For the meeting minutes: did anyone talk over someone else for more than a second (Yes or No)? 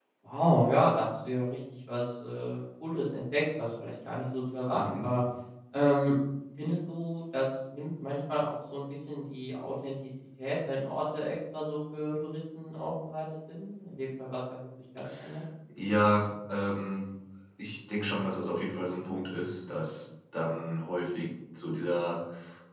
No